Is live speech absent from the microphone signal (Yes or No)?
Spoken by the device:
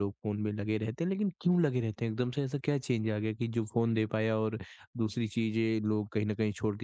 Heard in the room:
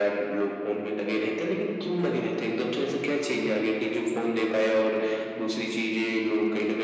Yes